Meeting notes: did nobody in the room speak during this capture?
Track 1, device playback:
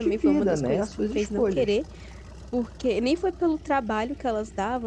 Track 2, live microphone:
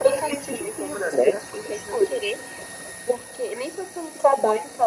Yes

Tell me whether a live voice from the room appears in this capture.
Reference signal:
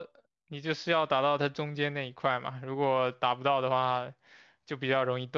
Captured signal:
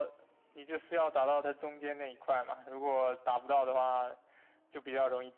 No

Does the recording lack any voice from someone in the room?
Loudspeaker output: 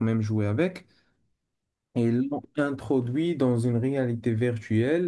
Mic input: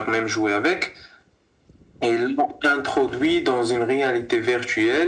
Yes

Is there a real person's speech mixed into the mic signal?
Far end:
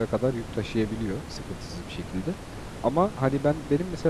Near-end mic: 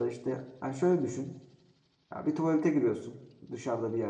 Yes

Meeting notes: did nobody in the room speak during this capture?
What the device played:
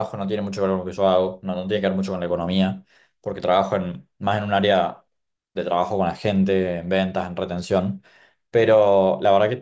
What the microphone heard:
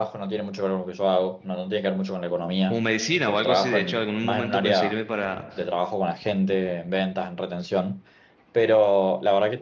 No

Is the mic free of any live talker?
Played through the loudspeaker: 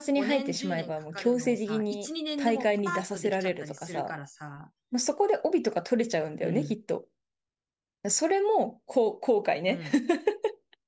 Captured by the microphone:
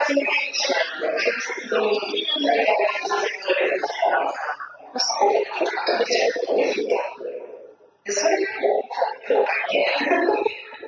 Yes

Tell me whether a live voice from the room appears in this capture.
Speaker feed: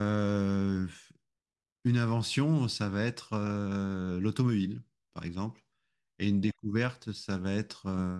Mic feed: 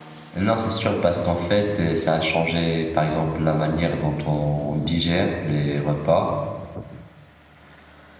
Yes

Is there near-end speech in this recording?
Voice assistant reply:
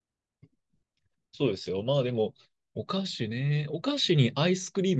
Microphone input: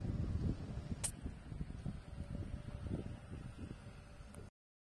No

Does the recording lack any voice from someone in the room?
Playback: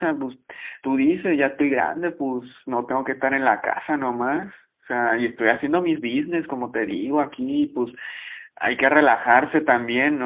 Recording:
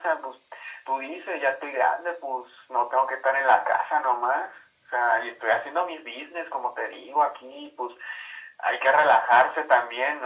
Yes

